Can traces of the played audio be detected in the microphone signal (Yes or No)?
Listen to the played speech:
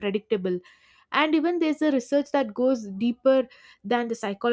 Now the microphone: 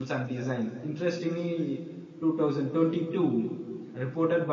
No